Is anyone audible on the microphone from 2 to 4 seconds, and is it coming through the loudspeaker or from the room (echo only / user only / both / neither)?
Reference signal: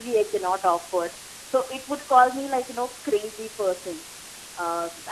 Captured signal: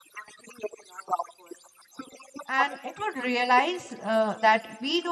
both